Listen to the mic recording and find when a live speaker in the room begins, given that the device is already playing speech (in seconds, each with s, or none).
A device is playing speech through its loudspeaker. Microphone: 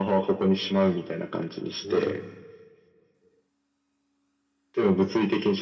1.8 s